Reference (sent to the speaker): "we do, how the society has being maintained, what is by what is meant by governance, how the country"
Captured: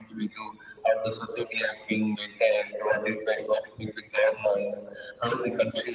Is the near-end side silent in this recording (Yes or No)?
Yes